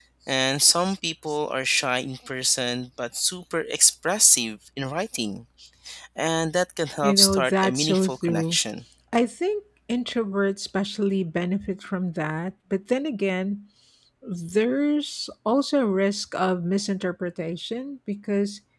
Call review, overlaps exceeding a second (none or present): present